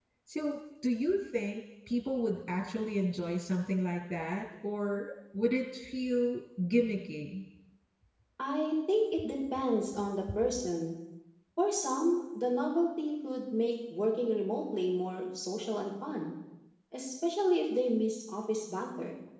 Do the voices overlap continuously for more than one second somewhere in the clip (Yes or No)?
No